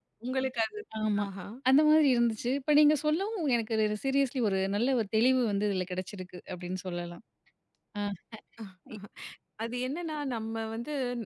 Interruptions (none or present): none